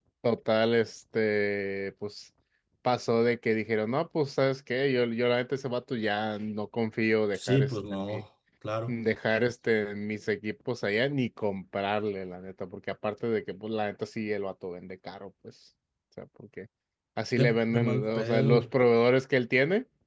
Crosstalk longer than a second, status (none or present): present